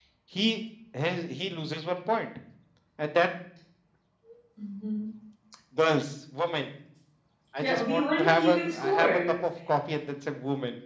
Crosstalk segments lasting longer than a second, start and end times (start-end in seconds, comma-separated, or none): 7.6-9.4